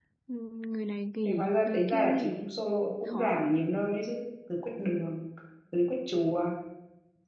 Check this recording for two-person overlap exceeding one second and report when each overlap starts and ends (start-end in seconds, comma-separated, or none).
1.2-2.5